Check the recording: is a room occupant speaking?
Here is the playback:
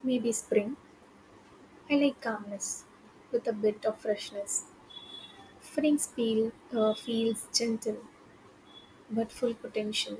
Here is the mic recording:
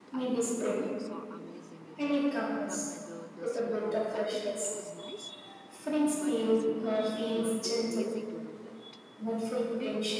Yes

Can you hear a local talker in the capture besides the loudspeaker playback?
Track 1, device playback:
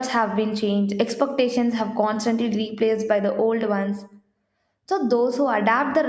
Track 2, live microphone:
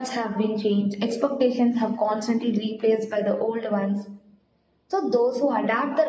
No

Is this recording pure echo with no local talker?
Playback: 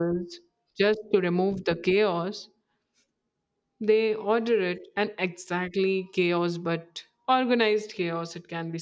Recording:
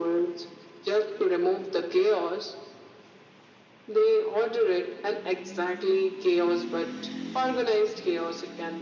Yes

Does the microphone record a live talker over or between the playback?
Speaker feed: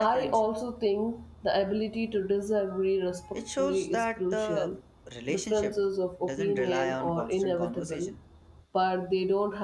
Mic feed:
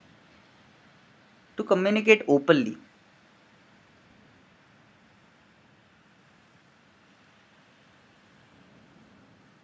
Yes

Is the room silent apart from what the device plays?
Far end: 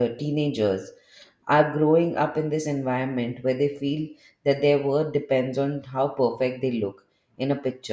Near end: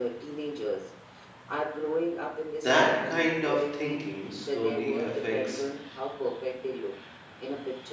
No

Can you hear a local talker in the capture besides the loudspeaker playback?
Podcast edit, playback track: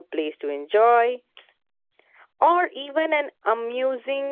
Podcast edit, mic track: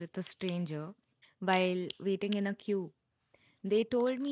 Yes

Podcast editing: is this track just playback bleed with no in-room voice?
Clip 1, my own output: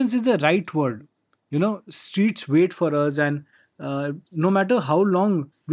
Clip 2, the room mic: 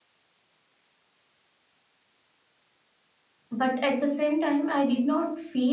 No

